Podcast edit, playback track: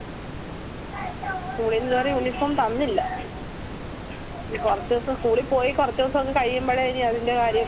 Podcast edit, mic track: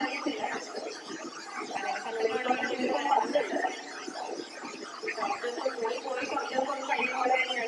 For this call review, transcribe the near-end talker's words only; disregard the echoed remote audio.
അതെല്ലെ പത്തെണ്ണോണ്ട് എനിക്കൊരു തോരം വെക്കാം

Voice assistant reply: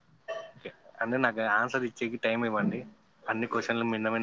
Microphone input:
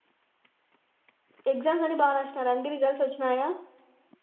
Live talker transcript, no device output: ఎగ్జామ్స్ అన్ని బాగ రాసినారా అండి రిజల్ట్స్ వచ్చినాయా

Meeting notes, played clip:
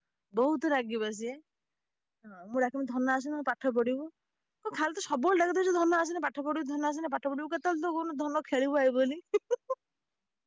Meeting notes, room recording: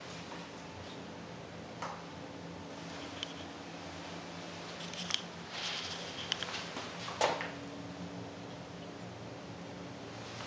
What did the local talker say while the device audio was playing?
none

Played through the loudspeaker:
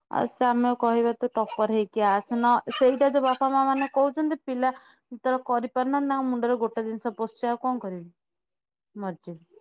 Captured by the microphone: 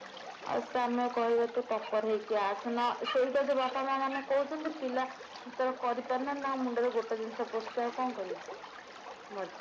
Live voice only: none

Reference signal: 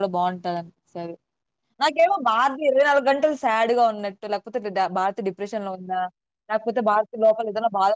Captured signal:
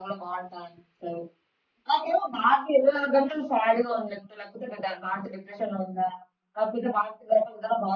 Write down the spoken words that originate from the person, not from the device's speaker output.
none

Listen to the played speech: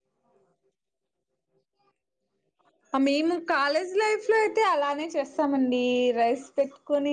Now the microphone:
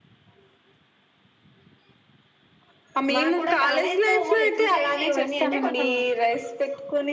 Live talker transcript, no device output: మాకు కూడా కాలేజ్ లో ఎక్సర్సైజ్లు ఇవన్నీ అంటే కొంచెం

